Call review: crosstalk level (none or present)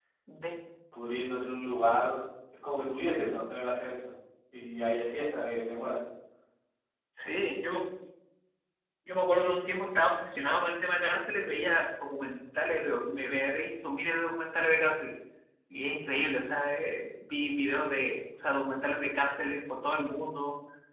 none